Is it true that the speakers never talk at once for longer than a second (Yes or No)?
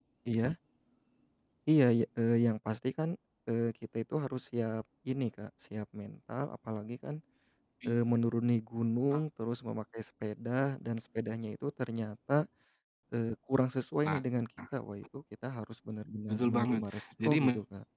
No